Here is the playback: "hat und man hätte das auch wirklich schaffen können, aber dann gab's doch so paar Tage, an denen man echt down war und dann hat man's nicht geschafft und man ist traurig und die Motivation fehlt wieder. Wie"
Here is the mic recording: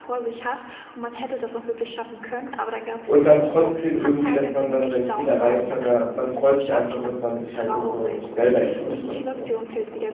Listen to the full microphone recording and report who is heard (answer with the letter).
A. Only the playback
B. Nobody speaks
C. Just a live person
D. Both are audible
D